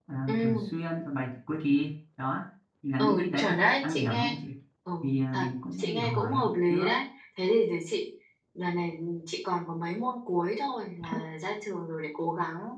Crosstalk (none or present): present